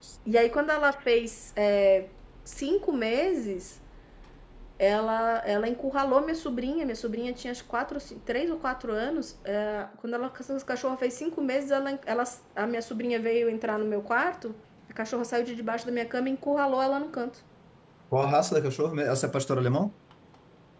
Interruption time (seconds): none

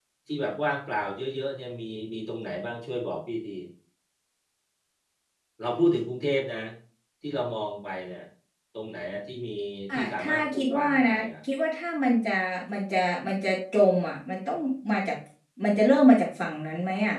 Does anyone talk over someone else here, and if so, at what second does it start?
9.9 s

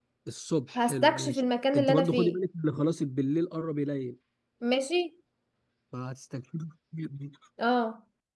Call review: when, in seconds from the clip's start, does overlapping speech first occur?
0.8 s

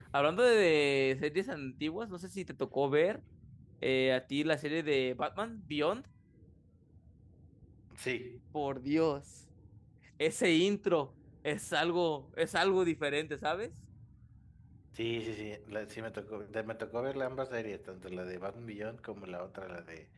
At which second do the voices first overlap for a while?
none

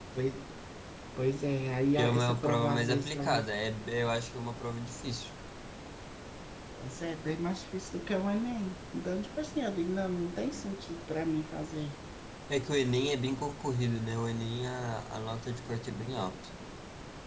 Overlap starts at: 1.9 s

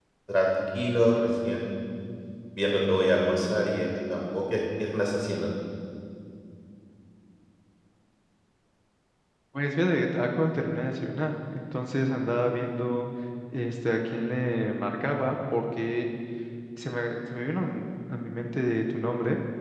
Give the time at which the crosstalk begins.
none

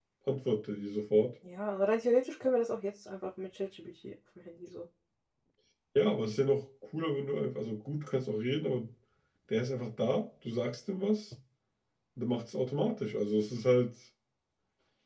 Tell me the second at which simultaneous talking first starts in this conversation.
none

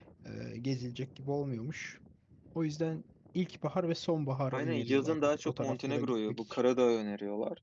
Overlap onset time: 4.5 s

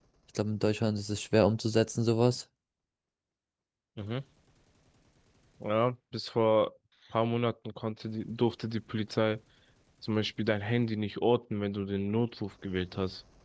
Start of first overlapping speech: none

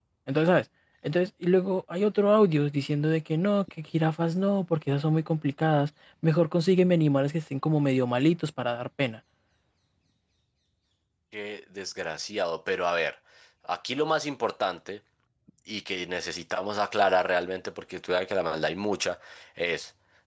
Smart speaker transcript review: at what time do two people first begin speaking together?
none

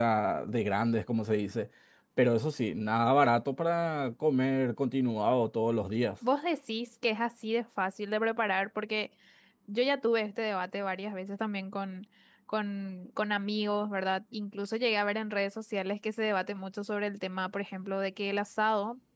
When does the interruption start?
none

